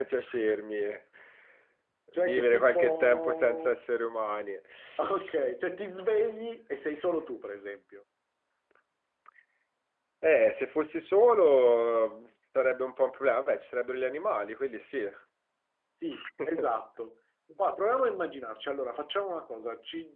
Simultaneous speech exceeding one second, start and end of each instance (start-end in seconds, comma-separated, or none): 2.1-3.8